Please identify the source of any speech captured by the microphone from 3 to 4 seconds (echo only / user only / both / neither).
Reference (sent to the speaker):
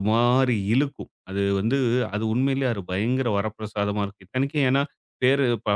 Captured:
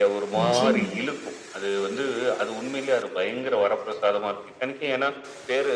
echo only